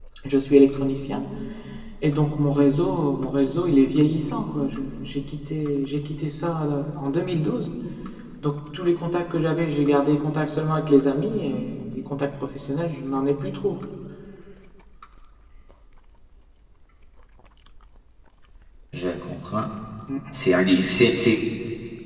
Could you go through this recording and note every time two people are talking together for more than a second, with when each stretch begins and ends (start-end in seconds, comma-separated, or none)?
none